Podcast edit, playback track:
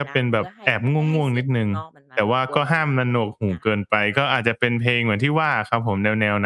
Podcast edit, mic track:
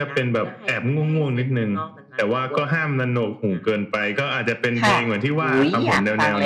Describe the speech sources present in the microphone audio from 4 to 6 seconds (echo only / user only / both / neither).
both